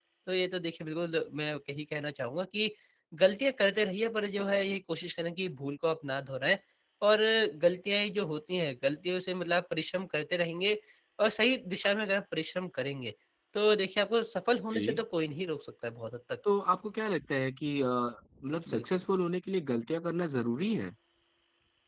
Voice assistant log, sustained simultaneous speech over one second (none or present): none